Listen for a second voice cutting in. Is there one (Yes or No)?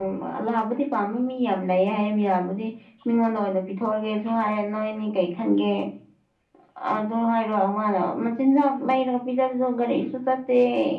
No